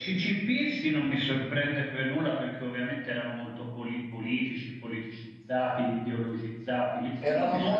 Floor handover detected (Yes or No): Yes